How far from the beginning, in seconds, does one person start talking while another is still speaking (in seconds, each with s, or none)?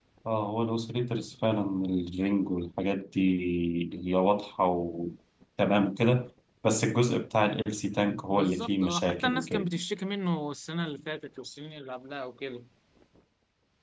8.3 s